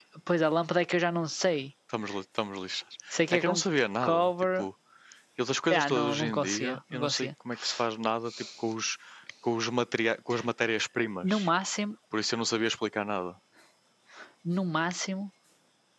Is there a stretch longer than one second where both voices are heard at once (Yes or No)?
Yes